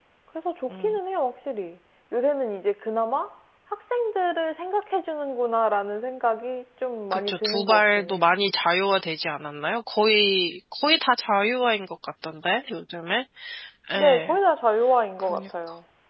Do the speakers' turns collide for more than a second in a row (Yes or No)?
Yes